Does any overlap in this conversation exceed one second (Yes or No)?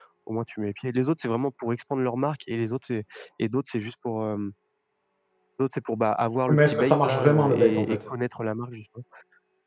Yes